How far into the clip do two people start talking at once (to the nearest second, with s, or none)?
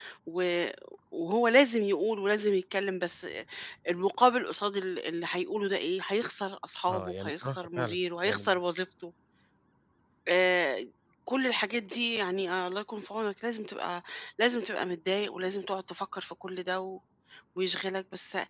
7 s